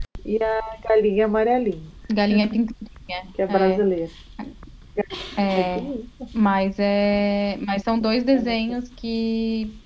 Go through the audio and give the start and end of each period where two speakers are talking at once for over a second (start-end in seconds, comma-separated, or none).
none